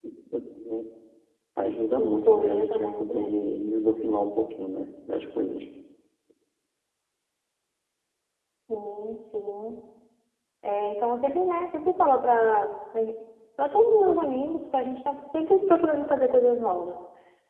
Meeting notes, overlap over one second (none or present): present